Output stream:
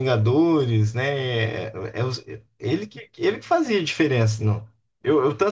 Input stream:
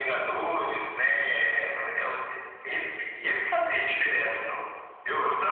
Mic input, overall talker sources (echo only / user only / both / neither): echo only